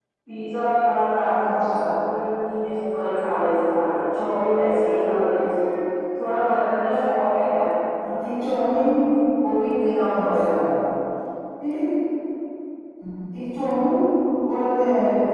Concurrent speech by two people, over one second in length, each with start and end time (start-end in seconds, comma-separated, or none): none